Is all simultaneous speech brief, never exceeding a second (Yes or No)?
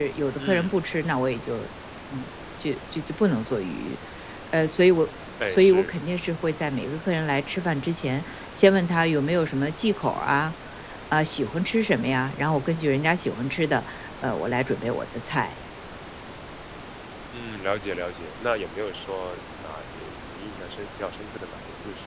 Yes